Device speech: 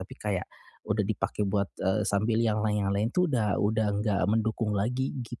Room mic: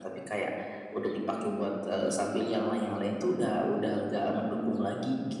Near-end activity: none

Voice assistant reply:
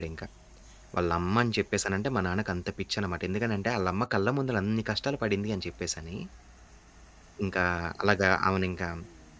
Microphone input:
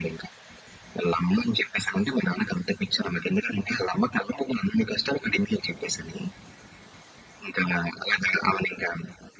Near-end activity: none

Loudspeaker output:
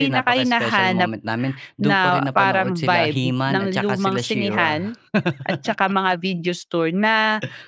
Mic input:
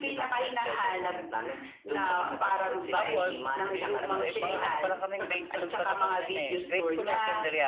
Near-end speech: present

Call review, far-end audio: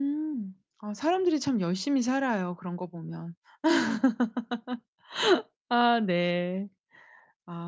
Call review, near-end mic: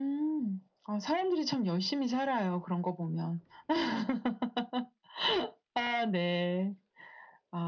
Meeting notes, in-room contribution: none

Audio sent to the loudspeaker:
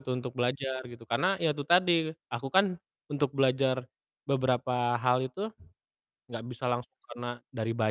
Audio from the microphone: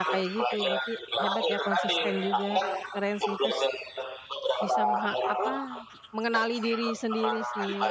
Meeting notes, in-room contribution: present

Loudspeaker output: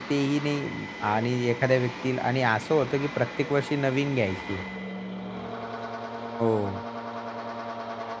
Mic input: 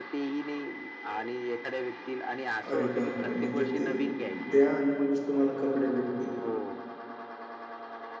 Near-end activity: present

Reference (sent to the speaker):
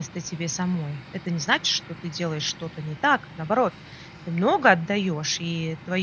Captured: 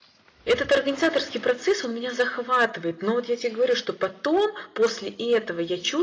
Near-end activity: present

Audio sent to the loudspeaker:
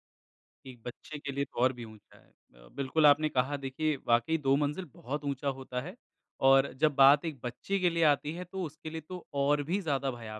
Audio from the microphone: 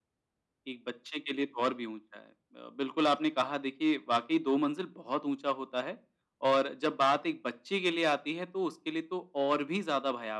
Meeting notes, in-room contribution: none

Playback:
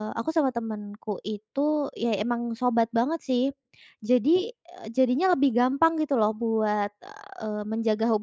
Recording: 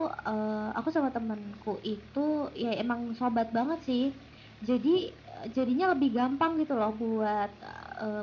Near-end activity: none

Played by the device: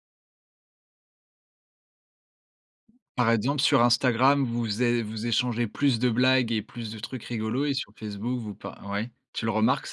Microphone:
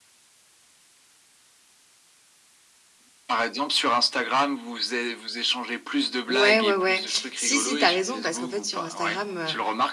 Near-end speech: present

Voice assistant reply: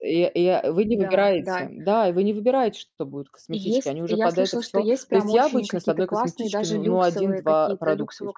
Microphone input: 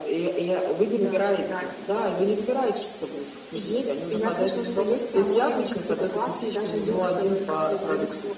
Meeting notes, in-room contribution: present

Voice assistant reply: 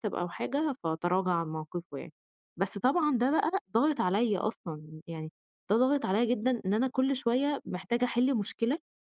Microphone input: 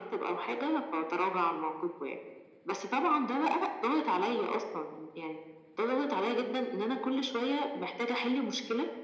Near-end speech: none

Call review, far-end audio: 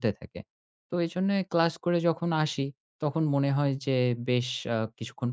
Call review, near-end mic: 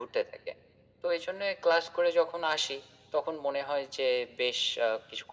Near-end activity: none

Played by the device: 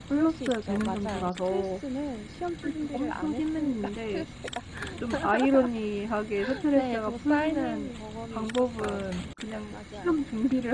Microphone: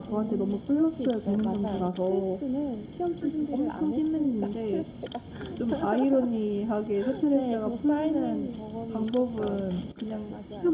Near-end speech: none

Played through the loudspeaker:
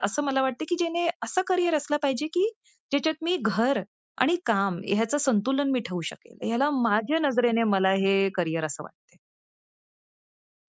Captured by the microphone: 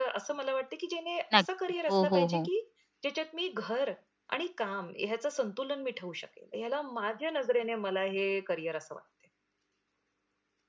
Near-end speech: present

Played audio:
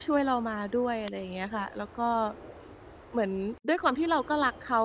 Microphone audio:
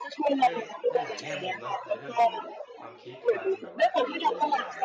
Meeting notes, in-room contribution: present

